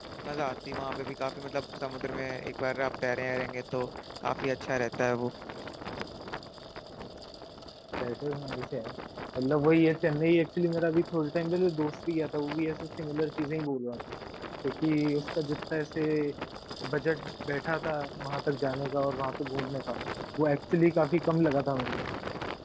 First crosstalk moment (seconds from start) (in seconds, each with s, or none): none